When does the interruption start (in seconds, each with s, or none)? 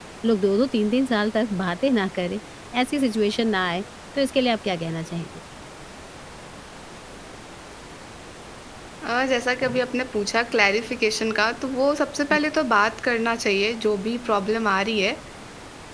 none